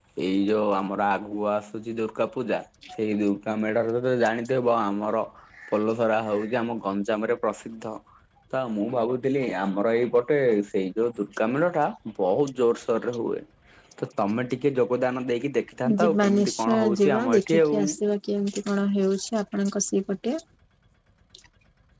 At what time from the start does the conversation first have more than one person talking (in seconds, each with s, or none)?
15.8 s